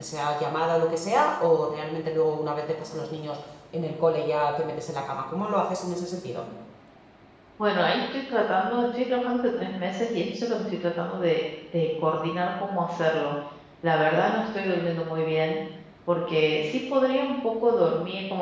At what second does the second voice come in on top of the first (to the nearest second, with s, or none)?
none